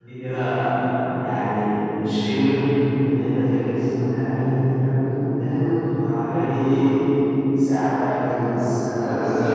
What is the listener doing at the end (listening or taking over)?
taking over